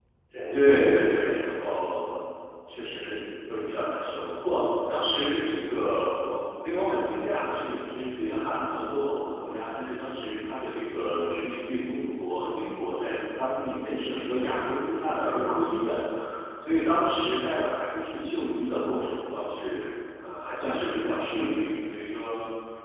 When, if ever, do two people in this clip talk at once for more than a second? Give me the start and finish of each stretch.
0.5-1.8

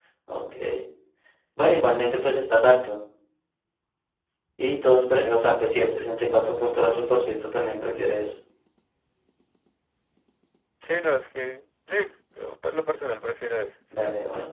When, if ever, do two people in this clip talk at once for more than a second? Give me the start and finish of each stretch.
none

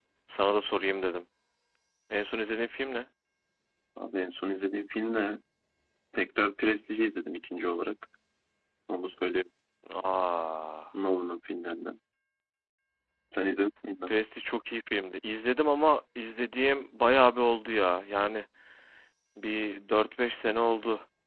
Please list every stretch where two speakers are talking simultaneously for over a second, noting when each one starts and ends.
none

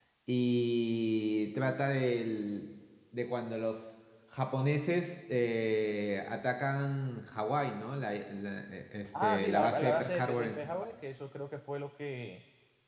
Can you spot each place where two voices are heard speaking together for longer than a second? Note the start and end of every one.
9.2-10.9

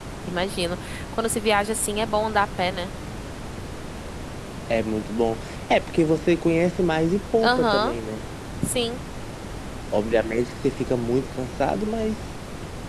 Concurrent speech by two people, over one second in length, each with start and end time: none

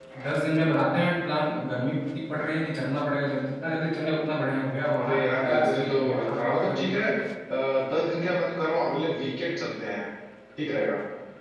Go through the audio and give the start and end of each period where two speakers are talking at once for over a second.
5.0-7.1

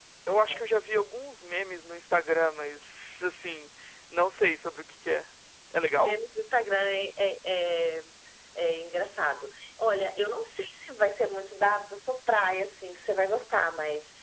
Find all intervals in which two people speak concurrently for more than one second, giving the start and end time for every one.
none

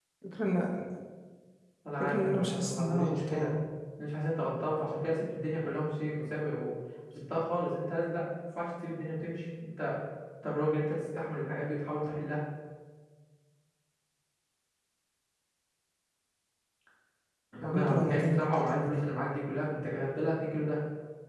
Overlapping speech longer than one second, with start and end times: 2.0-3.5, 17.6-19.0

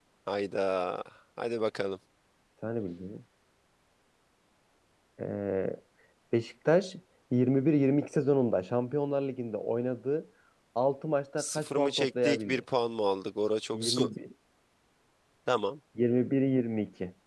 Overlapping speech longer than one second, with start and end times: 11.4-12.6

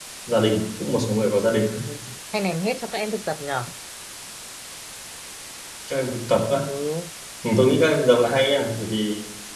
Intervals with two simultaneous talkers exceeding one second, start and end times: none

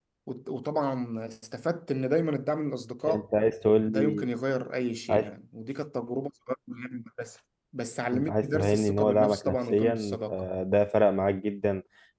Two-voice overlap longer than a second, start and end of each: 8.3-10.3

